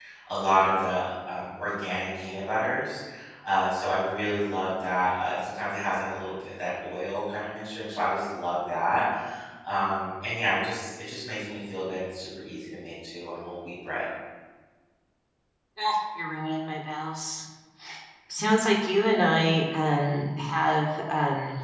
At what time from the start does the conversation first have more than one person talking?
none

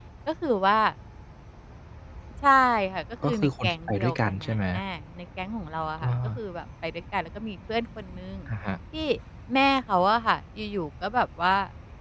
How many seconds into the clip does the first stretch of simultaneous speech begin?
3 s

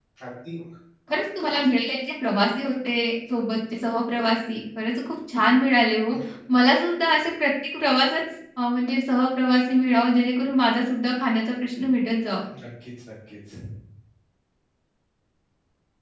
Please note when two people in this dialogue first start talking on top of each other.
none

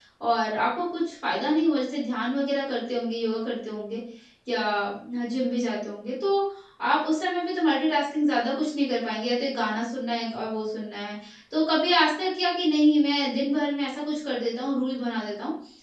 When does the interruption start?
none

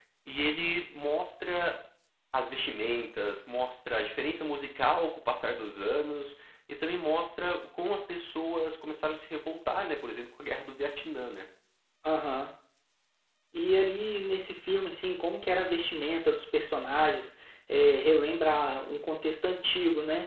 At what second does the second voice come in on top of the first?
none

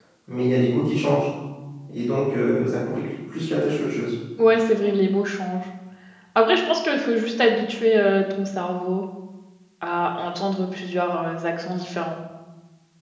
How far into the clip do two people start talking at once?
none

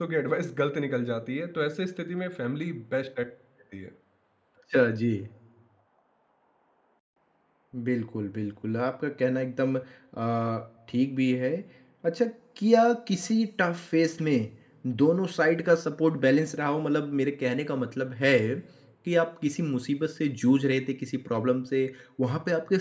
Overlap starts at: none

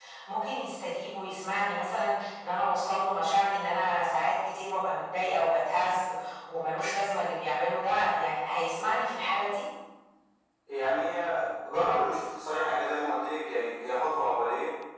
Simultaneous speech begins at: none

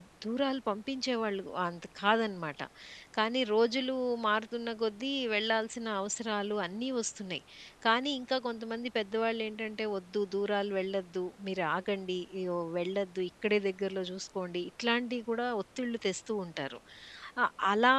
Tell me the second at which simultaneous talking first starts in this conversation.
none

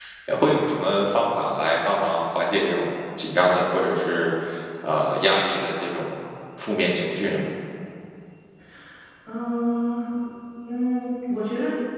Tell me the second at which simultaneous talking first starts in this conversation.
none

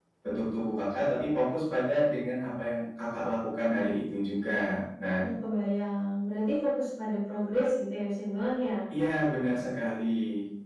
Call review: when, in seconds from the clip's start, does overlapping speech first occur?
none

